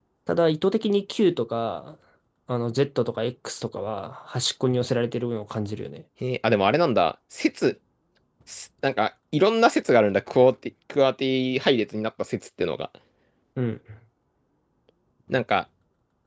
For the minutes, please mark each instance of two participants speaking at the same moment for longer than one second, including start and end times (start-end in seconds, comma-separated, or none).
none